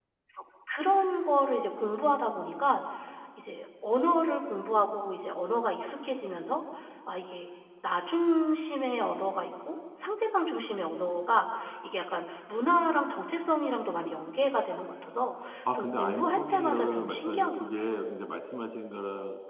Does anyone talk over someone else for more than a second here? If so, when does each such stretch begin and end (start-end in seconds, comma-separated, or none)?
15.7-17.7